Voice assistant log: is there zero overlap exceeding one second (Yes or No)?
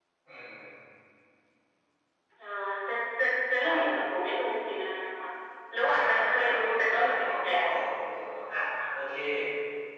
No